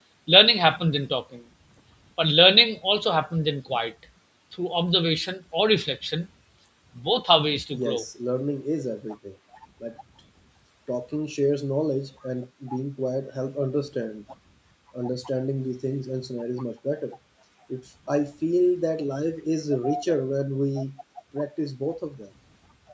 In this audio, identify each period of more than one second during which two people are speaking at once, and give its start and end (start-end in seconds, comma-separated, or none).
none